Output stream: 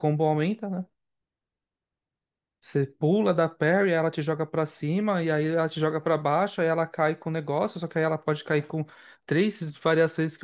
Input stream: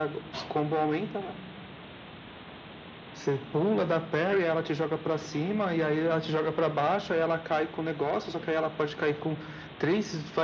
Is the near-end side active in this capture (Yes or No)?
No